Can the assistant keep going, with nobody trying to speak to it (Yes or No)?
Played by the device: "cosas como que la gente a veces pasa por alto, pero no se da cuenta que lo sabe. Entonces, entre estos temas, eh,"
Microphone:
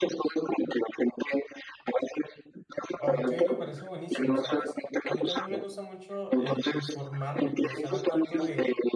No